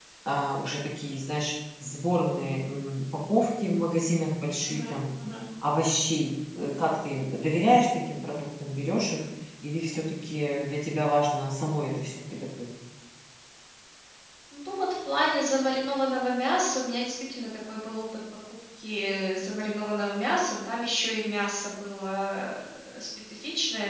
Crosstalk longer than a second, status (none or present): none